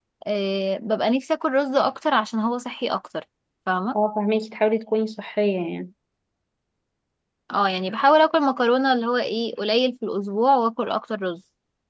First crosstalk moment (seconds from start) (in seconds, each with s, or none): none